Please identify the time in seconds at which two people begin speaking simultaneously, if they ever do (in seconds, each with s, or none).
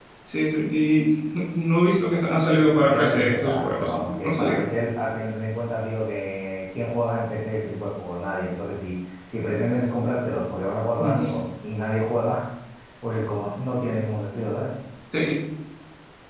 2.9 s